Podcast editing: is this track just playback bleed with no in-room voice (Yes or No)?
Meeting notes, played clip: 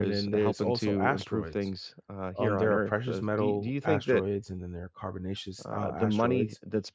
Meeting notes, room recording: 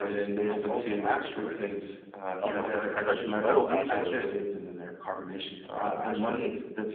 No